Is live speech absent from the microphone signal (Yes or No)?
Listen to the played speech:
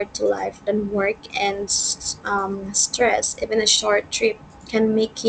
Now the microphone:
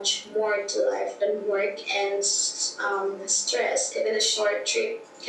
Yes